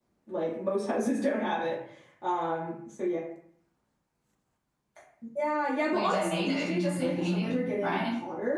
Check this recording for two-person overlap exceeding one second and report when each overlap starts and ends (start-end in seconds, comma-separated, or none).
5.9-8.0